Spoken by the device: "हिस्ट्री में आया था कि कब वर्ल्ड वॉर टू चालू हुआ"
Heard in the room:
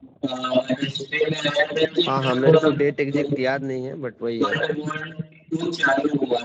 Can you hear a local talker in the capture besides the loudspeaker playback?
Yes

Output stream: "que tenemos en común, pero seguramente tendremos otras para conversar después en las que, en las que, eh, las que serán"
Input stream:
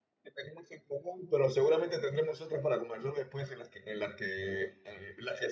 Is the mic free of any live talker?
Yes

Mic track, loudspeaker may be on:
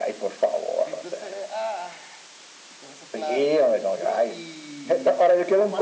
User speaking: Yes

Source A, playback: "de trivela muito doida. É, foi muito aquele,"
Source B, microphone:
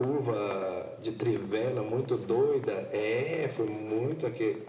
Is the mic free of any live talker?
Yes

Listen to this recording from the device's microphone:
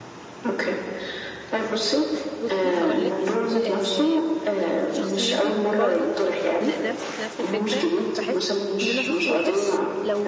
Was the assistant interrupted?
Yes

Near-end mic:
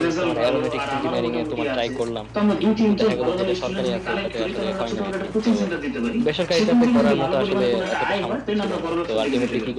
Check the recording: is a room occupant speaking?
Yes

